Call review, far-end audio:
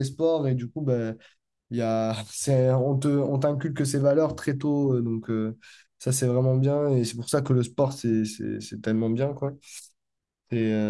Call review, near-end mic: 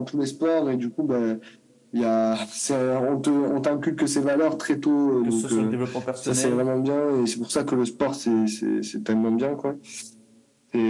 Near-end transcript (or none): que ce soit le développement personnel,